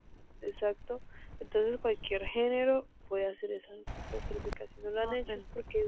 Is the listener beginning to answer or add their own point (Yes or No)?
No